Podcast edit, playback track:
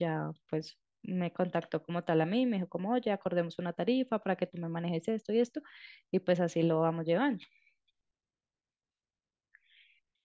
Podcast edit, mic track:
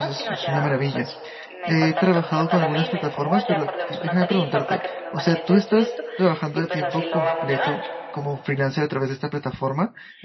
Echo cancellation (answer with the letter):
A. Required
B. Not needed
A